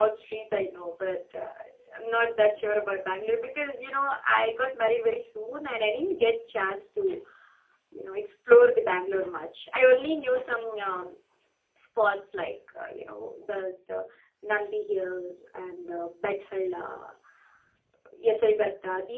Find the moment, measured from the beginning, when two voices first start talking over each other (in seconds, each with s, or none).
none